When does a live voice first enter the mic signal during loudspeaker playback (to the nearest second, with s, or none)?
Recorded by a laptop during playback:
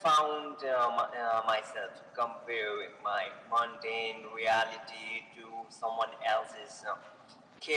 none